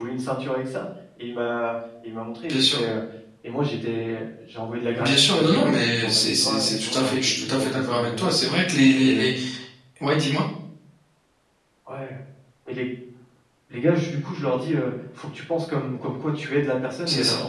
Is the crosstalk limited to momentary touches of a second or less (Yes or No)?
No